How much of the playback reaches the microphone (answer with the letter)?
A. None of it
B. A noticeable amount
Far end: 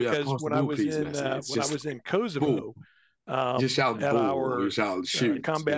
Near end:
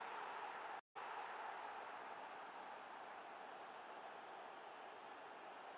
A